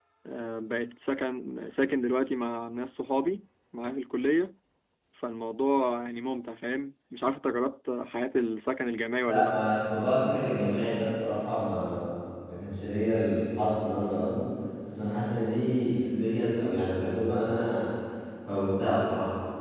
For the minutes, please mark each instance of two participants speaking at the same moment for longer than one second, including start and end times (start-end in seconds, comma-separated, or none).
none